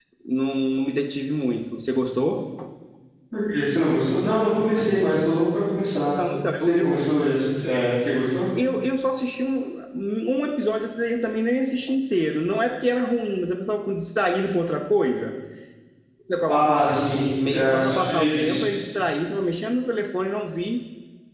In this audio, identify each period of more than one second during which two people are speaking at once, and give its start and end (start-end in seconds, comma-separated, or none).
16.5-18.6